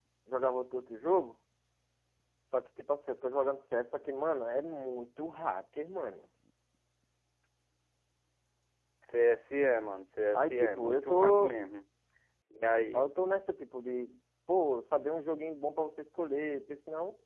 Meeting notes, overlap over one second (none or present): present